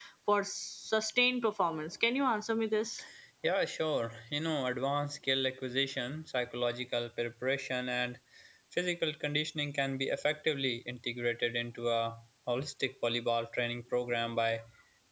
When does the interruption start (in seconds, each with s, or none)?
none